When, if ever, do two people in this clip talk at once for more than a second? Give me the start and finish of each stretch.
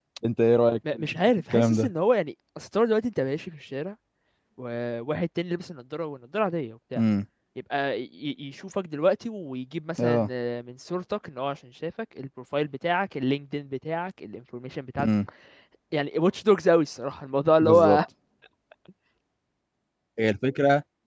none

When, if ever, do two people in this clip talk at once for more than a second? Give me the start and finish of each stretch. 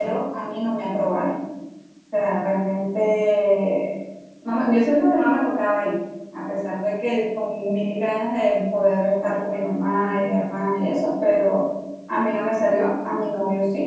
none

